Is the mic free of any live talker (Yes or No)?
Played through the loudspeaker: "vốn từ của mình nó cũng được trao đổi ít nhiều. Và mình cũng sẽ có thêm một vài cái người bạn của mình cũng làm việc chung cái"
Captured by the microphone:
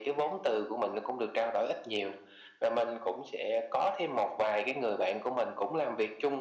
Yes